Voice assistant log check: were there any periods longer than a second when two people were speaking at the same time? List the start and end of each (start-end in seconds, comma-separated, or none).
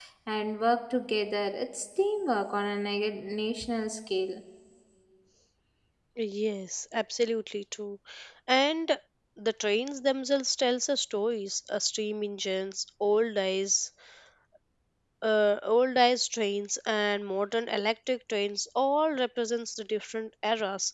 none